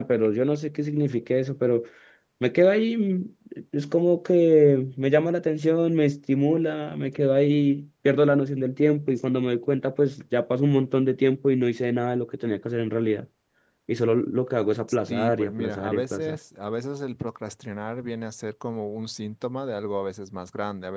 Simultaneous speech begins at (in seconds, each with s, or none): 15.1 s